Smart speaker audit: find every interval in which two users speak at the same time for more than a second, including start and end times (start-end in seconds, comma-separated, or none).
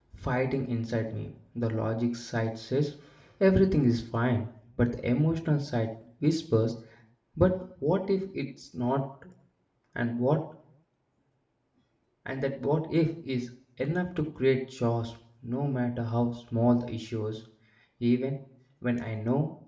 none